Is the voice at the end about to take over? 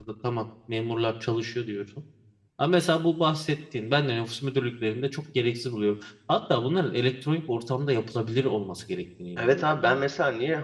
Yes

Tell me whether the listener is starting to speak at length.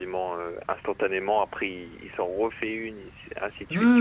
Yes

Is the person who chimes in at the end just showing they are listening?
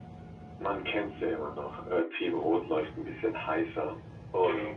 Yes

